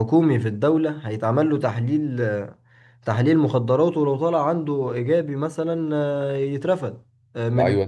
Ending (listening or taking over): taking over